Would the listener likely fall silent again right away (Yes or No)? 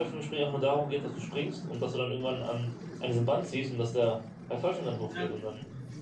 No